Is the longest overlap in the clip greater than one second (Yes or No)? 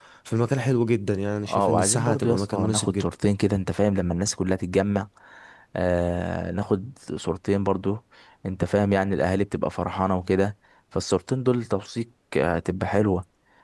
Yes